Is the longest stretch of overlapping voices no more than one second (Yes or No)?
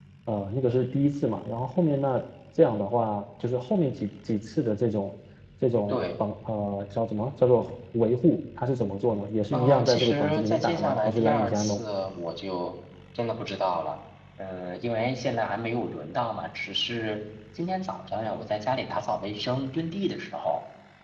No